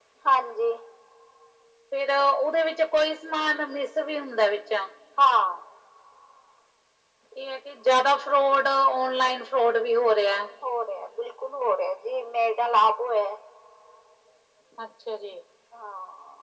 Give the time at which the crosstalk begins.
none

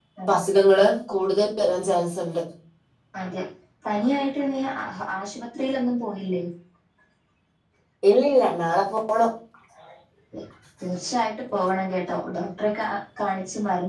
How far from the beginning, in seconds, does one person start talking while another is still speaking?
none

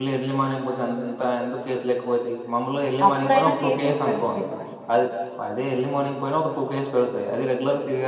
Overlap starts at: 3 s

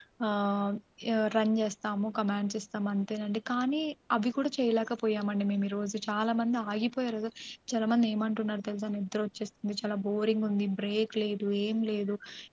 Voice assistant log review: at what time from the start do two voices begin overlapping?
none

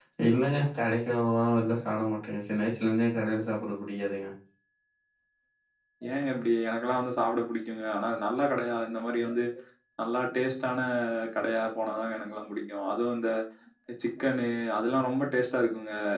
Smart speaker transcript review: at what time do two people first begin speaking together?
none

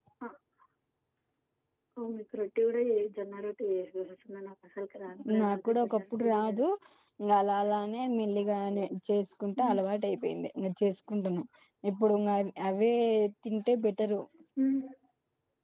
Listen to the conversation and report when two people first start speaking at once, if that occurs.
5 s

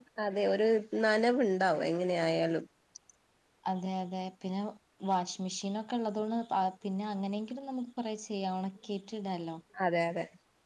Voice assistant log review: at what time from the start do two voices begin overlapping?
none

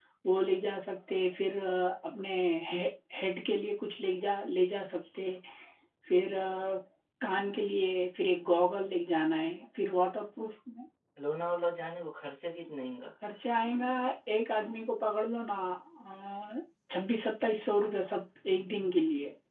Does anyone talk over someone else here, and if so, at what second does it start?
none

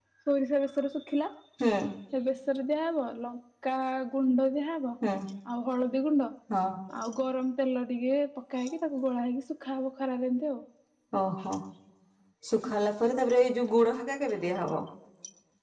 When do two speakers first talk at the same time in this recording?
none

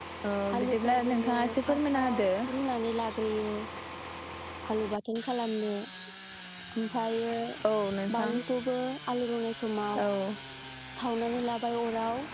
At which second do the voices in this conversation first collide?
1 s

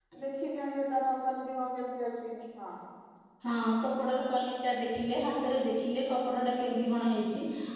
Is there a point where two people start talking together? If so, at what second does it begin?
none

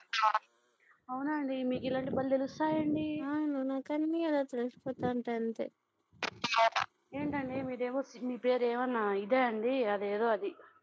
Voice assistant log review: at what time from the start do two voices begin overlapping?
none

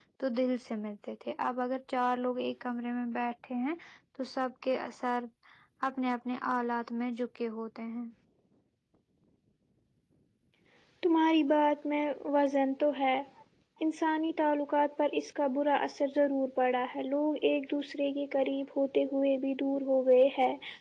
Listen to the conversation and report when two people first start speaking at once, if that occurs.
none

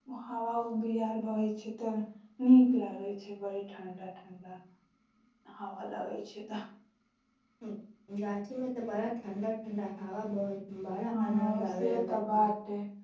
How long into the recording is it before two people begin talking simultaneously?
11 s

